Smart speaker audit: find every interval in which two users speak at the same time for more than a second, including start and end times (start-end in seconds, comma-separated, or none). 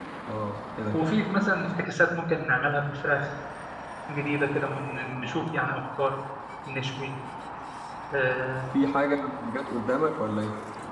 none